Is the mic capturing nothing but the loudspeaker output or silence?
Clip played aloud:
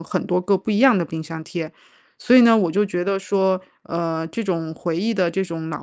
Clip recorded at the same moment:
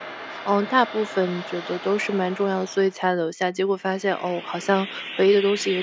No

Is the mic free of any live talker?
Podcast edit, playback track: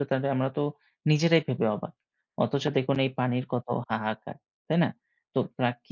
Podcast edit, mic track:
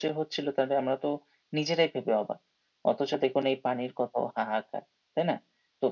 Yes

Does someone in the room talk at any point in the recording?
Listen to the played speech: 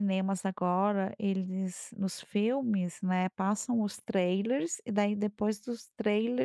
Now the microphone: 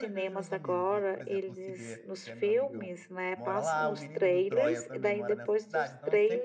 Yes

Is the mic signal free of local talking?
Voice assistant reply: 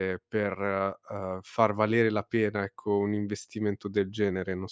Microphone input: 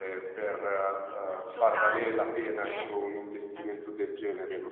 No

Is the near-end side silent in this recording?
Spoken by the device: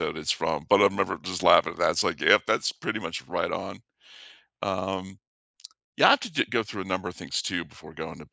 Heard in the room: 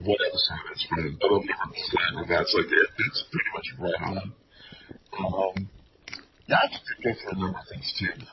Yes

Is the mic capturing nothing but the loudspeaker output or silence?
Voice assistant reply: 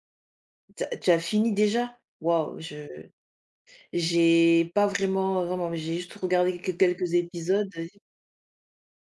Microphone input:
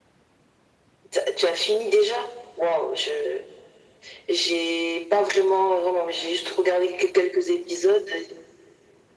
Yes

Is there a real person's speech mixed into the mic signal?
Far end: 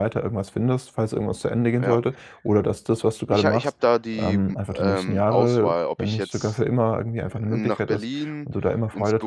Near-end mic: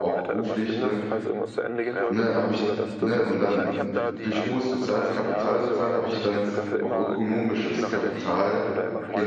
Yes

